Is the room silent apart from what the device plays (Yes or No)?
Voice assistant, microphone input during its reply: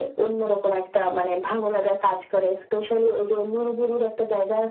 Yes